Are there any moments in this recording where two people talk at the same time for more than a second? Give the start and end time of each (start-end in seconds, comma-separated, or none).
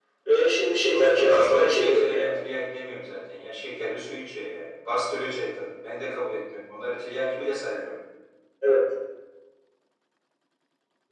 0.9-2.3